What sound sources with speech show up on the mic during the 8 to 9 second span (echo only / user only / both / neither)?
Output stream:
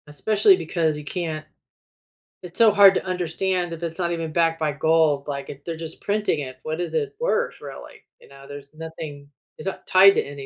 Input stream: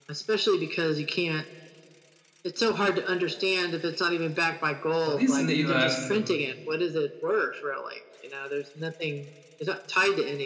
echo only